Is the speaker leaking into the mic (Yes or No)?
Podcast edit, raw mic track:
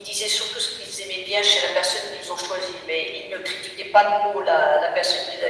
Yes